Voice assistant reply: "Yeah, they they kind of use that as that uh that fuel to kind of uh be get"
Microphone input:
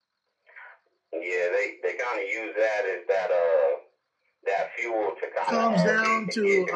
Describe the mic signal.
both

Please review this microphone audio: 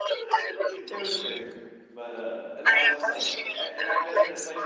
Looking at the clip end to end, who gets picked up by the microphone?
both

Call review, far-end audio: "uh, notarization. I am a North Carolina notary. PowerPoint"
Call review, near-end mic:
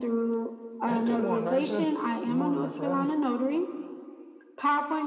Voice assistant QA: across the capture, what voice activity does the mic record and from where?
both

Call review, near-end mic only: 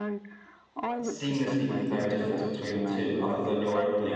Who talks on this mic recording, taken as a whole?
both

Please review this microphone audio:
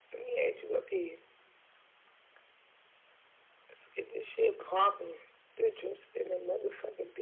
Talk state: echo only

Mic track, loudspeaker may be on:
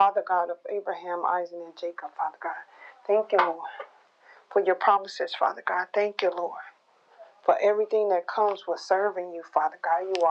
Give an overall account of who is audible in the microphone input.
echo only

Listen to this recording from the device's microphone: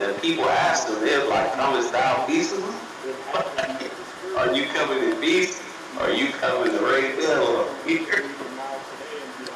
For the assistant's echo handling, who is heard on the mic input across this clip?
both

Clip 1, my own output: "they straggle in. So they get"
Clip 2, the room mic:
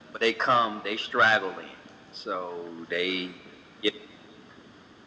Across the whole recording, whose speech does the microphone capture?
echo only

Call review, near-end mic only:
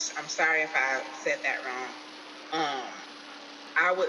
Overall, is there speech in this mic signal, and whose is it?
user only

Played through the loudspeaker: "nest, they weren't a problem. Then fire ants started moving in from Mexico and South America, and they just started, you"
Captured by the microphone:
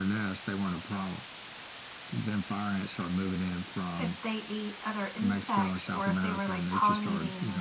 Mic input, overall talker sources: both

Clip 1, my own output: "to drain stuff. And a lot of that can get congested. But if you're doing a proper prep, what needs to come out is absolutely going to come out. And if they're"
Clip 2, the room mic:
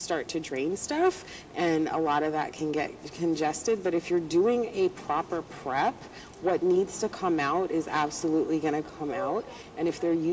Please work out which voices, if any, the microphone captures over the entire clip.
both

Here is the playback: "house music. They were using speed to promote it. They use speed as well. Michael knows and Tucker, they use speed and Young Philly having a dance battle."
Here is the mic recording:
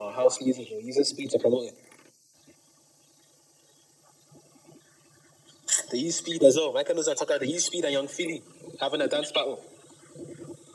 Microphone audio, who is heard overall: echo only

